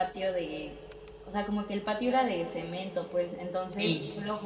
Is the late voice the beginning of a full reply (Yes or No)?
No